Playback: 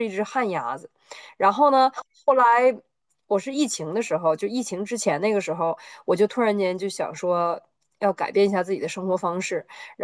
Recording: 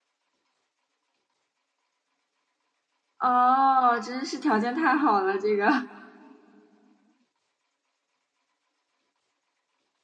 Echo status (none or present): none